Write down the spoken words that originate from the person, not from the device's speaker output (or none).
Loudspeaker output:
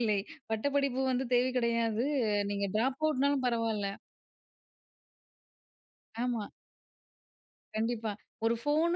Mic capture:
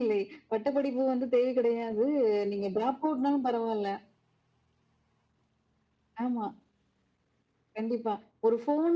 none